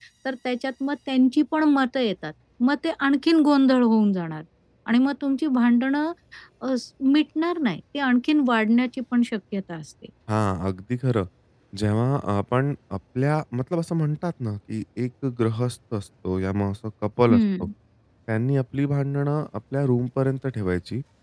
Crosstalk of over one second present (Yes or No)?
No